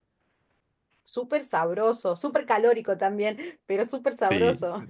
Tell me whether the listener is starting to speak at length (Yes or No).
Yes